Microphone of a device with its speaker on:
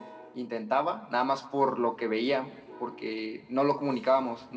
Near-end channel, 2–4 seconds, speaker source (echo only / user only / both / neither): echo only